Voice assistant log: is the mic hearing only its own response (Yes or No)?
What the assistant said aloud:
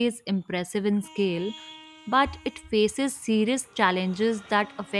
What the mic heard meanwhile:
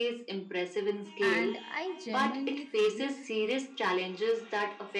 No